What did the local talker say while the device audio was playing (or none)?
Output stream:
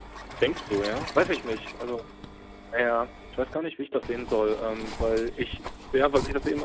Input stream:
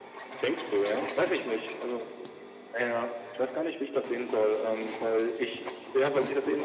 none